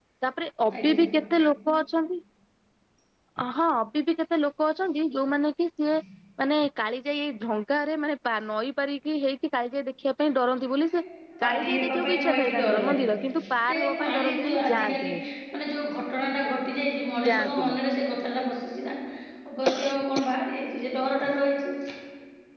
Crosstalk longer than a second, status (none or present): present